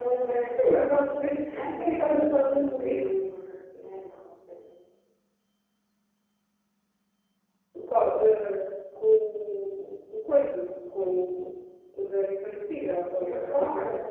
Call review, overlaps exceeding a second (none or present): present